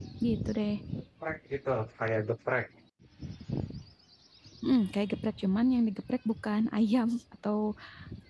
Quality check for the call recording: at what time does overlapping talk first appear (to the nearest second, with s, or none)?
none